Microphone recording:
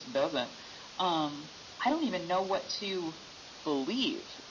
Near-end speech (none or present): none